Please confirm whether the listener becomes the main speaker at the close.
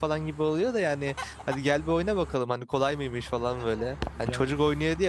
No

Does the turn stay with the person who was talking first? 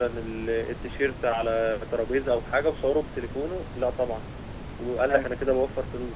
Yes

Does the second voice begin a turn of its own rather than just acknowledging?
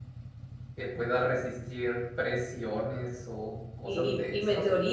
Yes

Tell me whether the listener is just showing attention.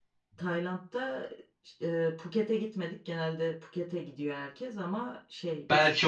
No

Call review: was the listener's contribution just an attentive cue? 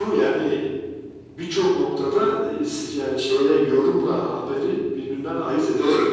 No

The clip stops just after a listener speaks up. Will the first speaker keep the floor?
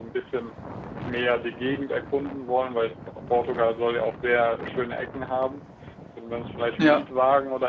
Yes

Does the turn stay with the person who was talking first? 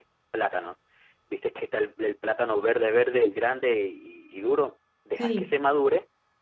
Yes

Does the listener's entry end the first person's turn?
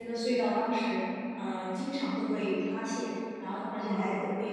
No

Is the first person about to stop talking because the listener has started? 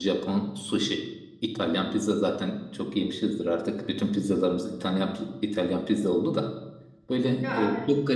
No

